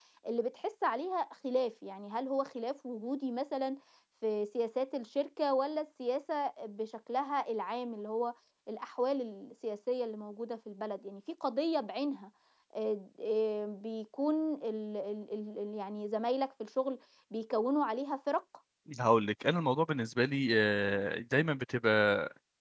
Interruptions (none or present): none